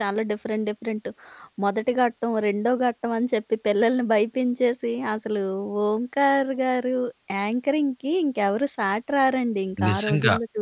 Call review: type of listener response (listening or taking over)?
taking over